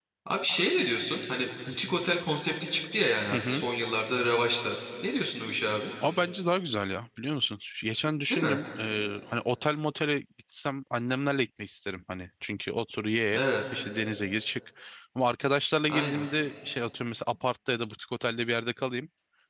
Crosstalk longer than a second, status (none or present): none